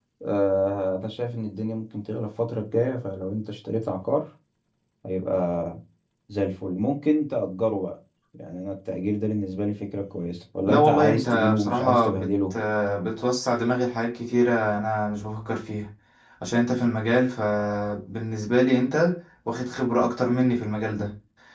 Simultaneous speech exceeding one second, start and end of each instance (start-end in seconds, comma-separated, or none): 10.7-12.5